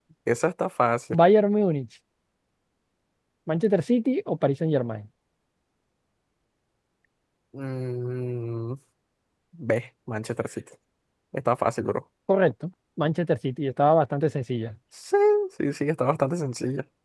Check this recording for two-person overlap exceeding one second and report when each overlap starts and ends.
none

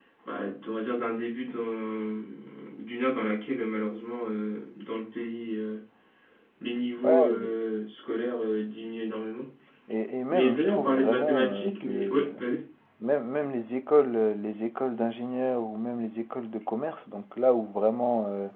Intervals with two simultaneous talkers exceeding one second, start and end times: 10.3-12.3

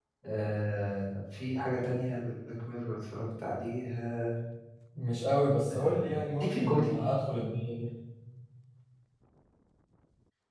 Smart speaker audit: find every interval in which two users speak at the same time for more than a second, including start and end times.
5.7-6.9

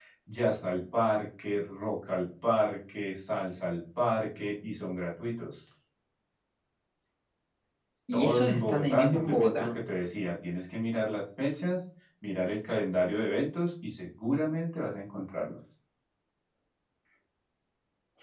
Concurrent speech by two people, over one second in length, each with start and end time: 8.1-9.7

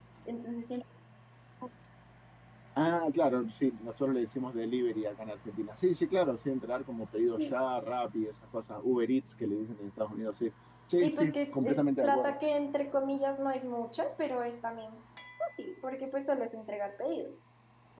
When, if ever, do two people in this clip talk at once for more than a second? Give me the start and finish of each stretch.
11.0-12.3

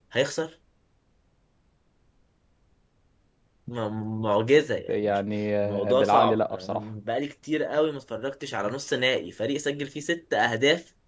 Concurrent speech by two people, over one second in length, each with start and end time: 5.6-6.8

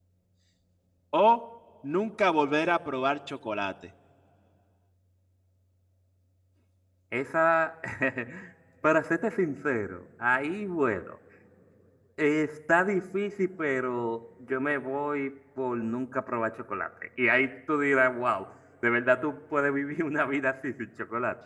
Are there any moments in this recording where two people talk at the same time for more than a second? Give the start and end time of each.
none

